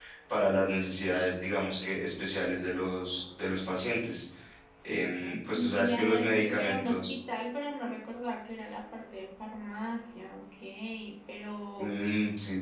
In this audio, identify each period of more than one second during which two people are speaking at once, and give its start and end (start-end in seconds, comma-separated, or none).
4.9-7.1